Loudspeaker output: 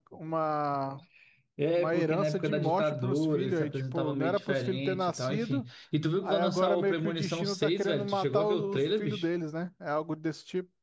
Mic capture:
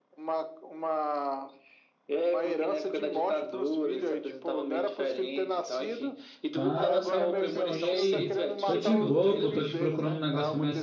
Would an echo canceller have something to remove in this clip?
Yes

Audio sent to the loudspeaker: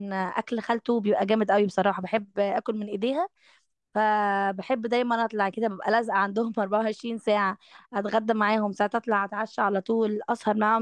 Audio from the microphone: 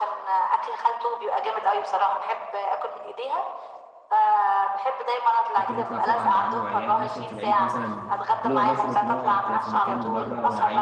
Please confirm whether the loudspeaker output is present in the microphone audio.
Yes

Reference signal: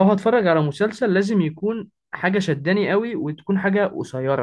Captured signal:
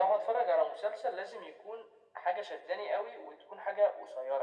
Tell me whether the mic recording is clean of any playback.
No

